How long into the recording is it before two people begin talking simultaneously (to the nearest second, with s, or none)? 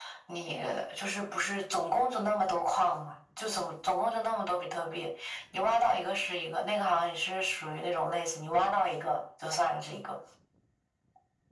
none